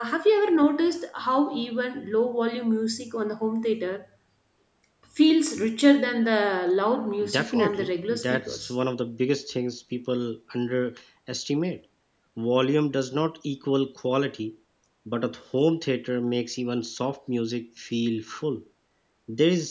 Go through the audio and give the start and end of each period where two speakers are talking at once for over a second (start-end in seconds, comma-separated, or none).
7.3-8.7